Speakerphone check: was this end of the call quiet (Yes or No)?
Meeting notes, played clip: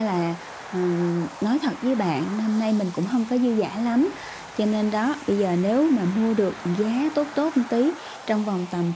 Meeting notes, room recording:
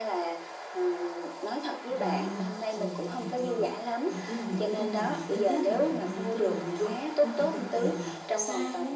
No